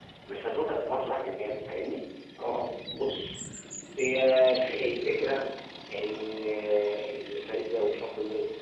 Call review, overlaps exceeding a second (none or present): none